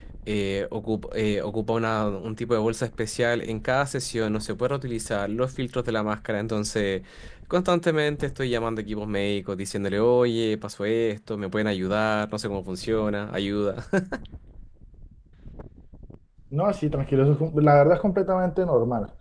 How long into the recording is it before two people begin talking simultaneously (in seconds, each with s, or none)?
none